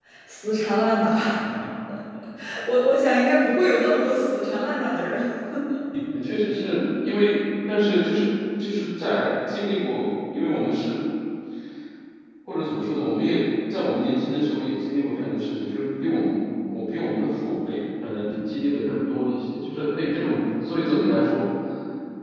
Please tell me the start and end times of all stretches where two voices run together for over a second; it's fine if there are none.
none

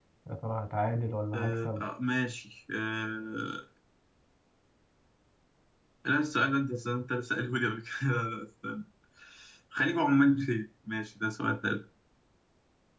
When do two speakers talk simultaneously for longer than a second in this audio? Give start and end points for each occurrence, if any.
none

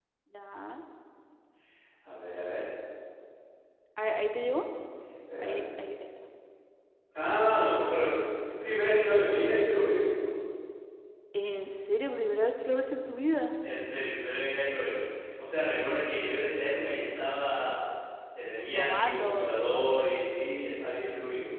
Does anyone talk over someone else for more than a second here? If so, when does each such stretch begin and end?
18.8-20.1

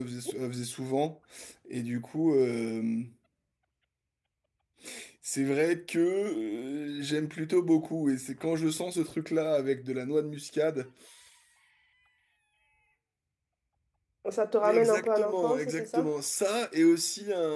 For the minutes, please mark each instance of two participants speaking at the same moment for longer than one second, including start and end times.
14.6-16.1

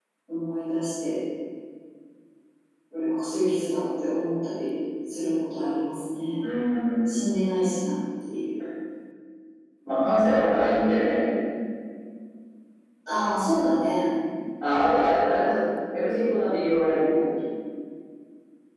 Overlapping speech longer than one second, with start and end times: none

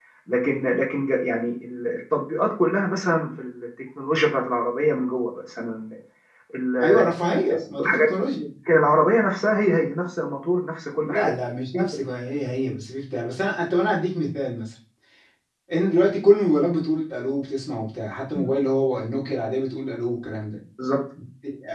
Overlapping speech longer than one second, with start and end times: none

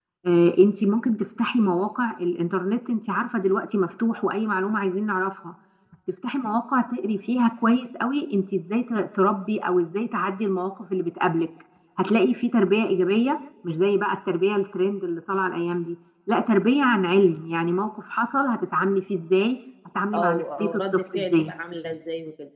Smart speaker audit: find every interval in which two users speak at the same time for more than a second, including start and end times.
20.1-21.5

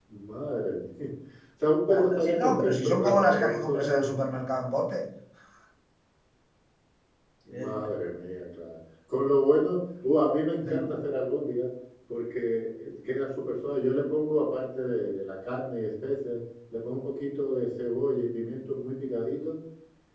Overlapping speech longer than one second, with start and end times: 1.9-4.1

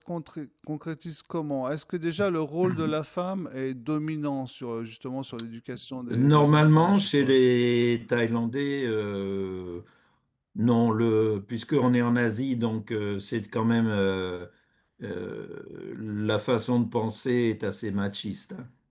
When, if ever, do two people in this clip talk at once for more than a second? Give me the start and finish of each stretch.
6.1-7.4

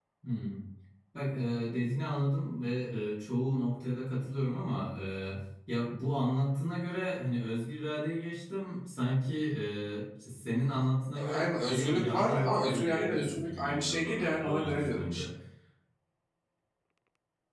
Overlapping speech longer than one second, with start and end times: 11.1-15.2

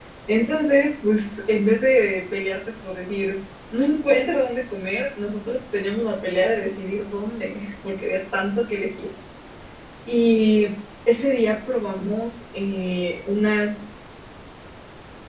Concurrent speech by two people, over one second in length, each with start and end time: none

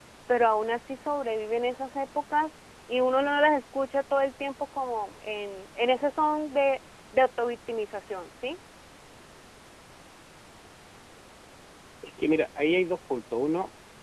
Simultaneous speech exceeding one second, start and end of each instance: none

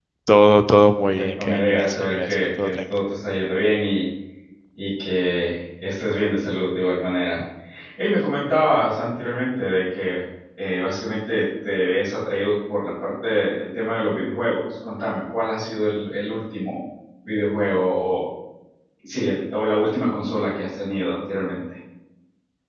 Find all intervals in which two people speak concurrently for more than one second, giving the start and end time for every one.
1.0-2.8

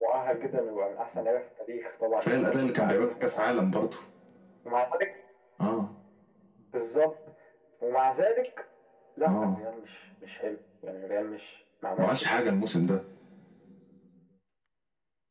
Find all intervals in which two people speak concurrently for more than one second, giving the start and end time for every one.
2.2-3.4

